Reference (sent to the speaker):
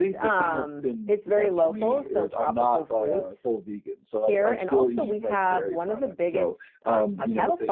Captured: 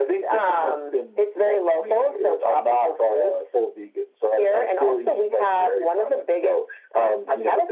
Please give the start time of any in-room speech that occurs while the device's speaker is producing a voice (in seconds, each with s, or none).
none